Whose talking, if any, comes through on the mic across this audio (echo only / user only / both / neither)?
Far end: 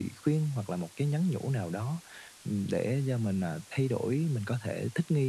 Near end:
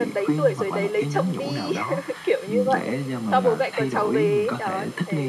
both